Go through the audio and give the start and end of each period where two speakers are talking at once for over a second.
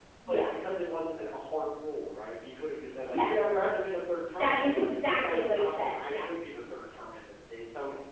4.3-6.3

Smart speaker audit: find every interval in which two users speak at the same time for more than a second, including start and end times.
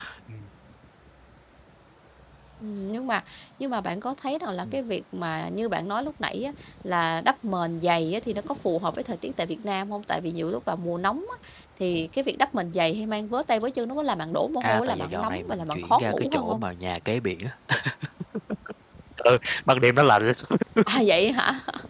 14.6-16.6

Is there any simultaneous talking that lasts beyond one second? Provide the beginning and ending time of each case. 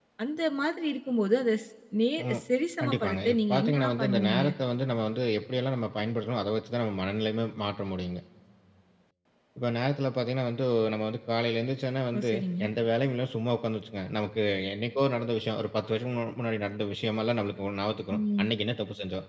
2.8-4.4

